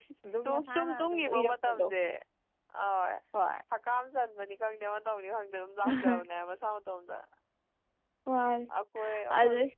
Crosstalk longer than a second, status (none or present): present